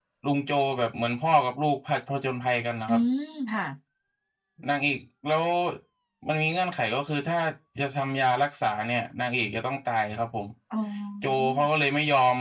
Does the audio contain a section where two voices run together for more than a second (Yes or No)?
No